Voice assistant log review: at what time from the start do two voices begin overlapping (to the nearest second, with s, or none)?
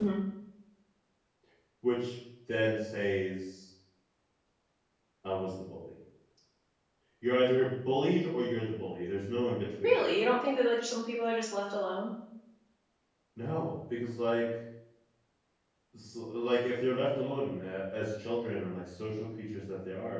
none